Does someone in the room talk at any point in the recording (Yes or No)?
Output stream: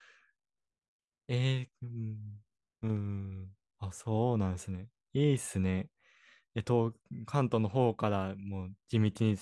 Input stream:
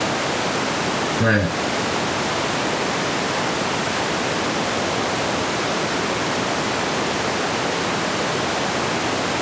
Yes